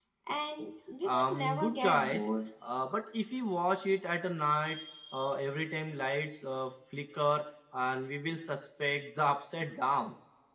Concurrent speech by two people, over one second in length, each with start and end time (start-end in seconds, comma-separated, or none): 1.1-2.3